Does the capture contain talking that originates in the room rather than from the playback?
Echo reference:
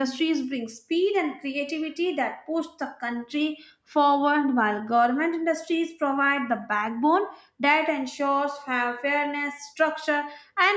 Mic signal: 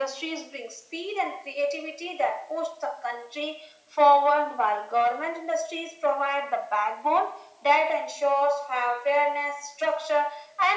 No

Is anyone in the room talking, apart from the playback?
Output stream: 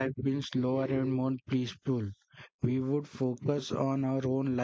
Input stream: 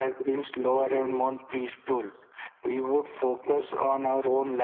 No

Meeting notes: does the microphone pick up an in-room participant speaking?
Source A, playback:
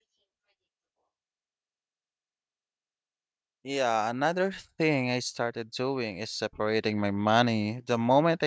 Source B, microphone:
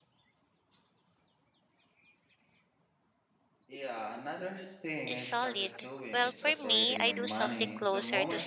Yes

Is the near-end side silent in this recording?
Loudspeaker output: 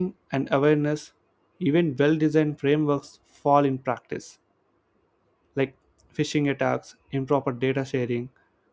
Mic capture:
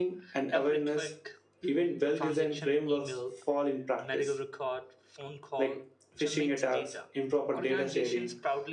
No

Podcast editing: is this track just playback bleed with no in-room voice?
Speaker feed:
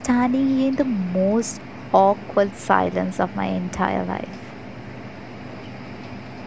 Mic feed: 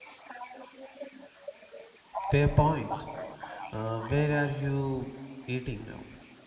No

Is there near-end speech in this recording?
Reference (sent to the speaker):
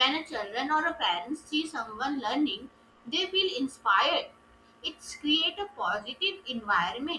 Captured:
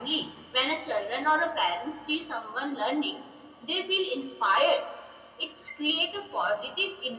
No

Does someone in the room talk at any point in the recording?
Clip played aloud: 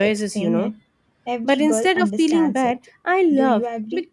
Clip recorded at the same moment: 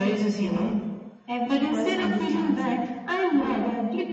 No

